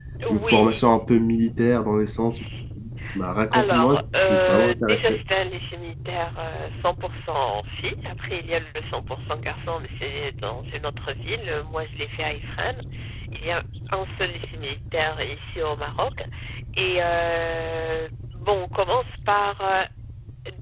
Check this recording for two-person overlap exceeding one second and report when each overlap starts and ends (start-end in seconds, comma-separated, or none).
3.5-5.2